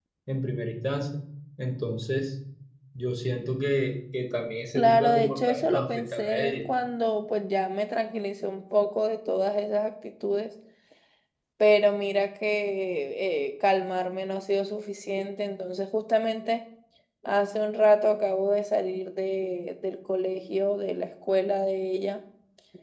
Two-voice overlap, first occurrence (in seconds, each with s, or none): 4.7 s